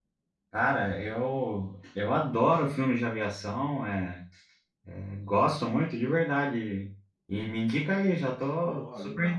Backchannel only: No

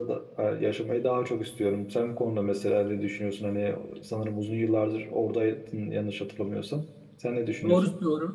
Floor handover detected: Yes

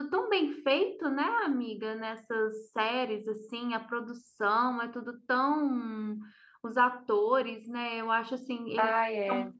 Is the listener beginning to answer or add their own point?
No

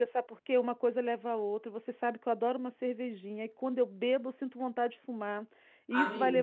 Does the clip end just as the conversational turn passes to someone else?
No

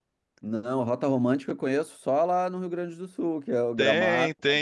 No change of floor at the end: No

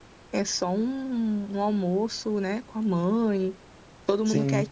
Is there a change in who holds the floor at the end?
No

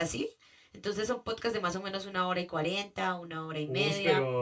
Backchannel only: No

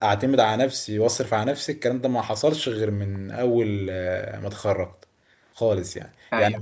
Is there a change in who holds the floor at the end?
Yes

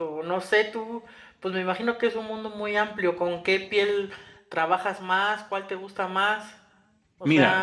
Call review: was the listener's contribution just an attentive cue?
No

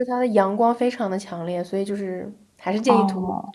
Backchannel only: No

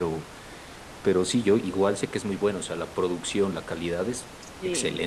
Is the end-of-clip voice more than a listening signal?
Yes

